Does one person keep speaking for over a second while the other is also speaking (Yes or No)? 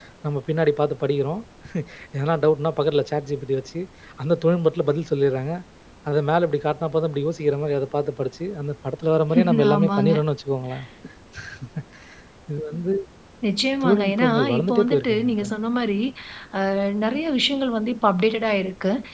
Yes